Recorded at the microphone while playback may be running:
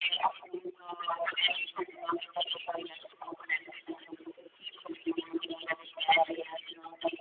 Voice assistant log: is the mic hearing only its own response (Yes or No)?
Yes